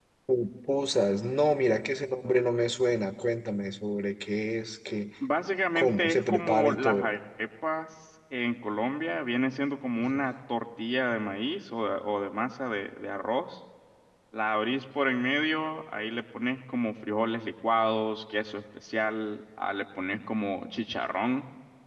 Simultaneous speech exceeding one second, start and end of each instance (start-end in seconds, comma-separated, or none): 5.8-7.1